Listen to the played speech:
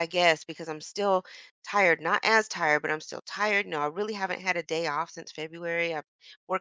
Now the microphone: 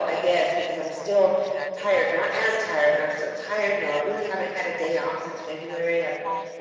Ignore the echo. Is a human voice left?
Yes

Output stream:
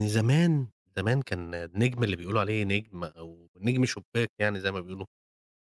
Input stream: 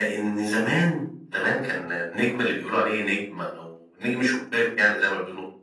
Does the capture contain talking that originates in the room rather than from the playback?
No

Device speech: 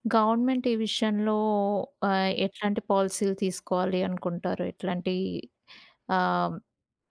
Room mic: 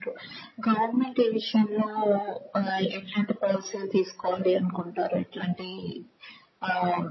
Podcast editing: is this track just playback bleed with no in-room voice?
Yes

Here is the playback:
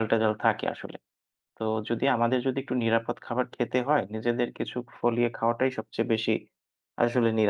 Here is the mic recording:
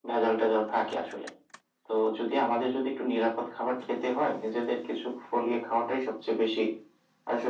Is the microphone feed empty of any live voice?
Yes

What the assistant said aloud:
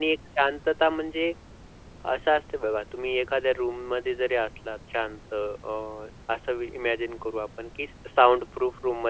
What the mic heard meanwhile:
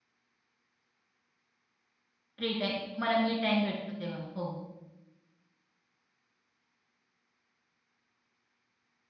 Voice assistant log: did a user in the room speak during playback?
Yes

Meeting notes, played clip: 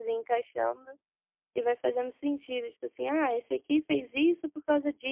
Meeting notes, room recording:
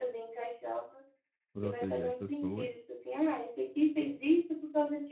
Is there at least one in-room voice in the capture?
Yes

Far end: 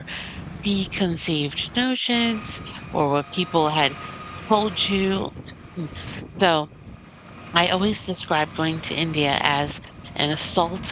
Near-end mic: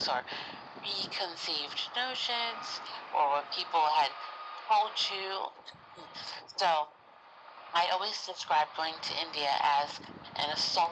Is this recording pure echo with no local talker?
Yes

